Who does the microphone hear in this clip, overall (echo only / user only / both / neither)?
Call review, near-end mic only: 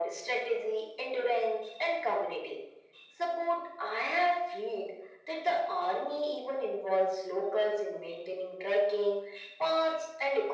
echo only